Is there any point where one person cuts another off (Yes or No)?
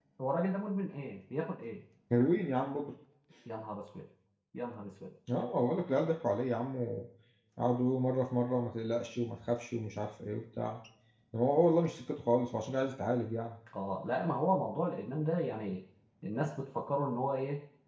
No